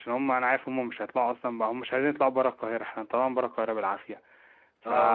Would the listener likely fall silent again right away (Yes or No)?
No